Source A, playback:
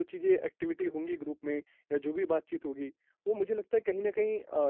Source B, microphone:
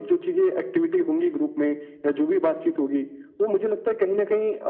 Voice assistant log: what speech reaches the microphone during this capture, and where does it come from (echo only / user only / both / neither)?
echo only